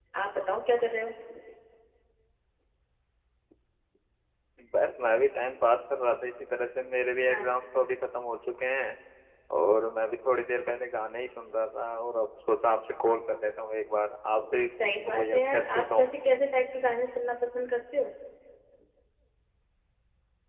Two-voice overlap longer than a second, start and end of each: 14.8-16.1

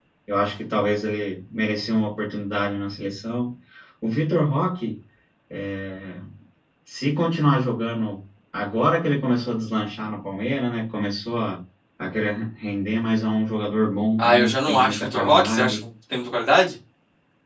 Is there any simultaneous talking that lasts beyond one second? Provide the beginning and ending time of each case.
14.2-15.8

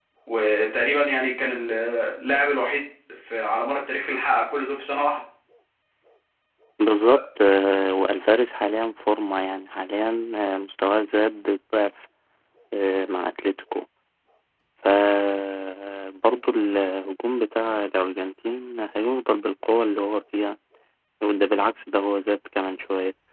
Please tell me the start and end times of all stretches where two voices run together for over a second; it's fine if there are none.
none

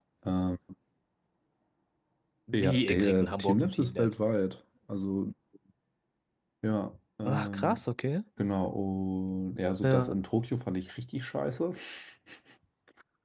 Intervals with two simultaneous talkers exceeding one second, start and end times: 2.5-4.2

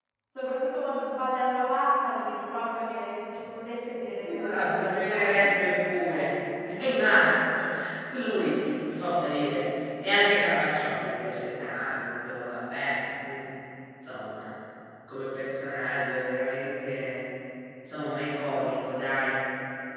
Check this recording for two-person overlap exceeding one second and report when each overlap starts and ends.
4.2-5.5

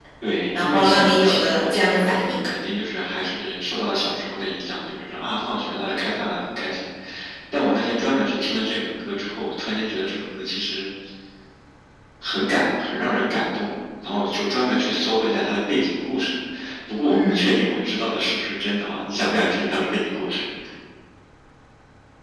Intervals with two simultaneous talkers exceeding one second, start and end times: 0.6-2.4

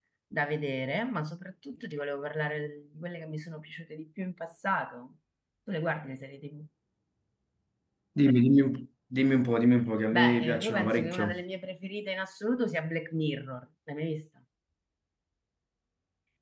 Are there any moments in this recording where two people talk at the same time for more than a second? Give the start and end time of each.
10.1-11.4

